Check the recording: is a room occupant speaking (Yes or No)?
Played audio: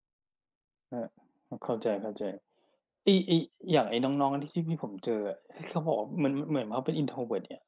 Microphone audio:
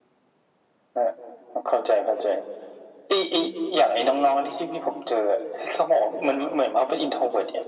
No